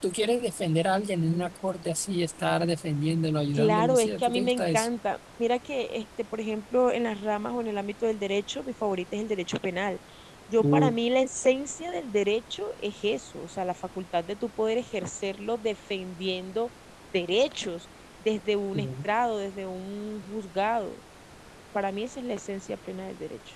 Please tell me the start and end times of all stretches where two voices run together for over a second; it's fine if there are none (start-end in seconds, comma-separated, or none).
3.5-4.9